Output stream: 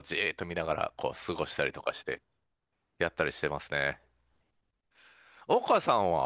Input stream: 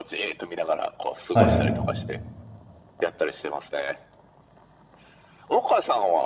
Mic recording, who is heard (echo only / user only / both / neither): both